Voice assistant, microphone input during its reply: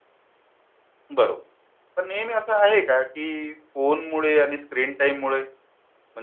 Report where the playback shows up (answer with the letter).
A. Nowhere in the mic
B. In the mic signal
A